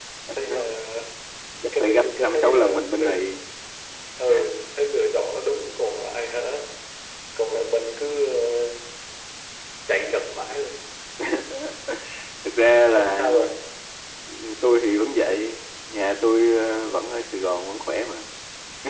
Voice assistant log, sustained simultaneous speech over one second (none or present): present